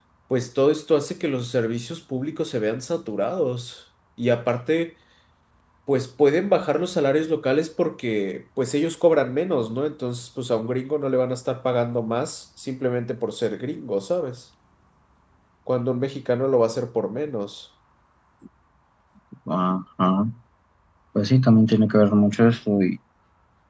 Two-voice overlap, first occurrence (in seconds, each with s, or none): none